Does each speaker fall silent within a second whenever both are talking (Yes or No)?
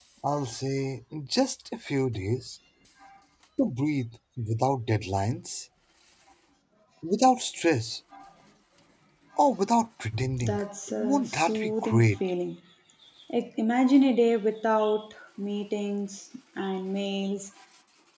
No